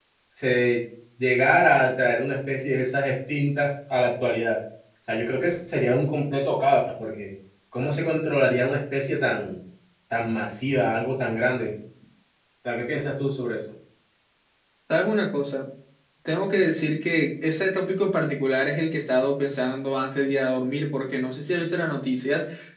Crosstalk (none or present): none